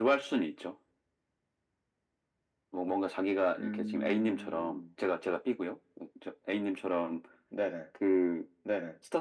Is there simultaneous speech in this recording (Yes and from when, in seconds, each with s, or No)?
Yes, from 3.6 s